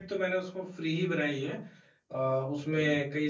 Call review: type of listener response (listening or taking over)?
listening